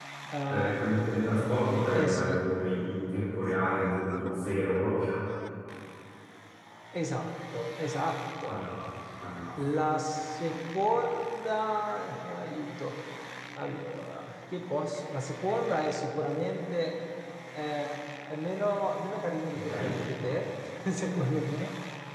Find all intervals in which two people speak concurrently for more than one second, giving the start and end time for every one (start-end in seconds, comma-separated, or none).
none